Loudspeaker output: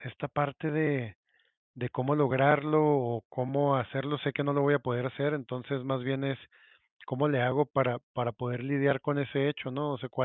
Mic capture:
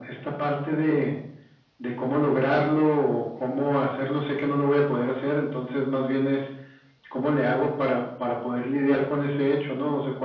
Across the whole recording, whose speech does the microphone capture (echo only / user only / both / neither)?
echo only